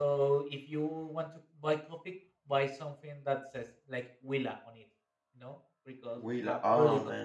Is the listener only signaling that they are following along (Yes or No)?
No